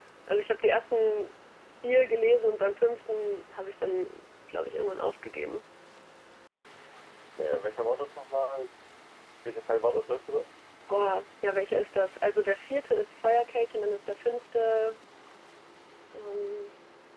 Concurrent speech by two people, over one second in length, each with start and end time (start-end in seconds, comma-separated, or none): none